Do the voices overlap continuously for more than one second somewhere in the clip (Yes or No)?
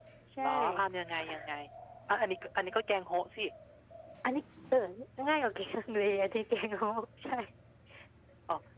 No